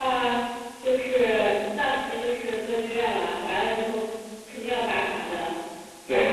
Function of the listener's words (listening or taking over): taking over